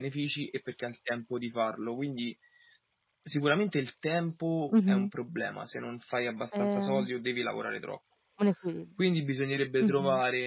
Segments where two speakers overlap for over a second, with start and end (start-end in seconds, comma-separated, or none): none